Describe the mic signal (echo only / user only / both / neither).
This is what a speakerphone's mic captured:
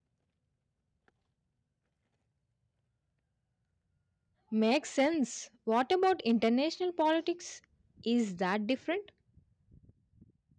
user only